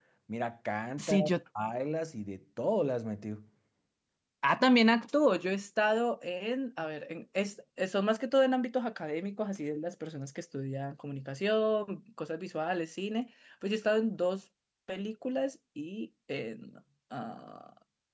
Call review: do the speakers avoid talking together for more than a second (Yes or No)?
Yes